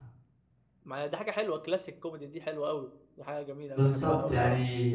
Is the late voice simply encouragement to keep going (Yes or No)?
No